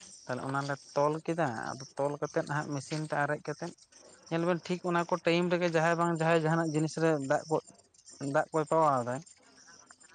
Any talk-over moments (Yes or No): No